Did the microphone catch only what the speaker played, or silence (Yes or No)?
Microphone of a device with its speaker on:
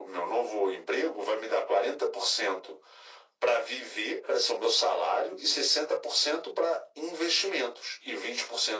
Yes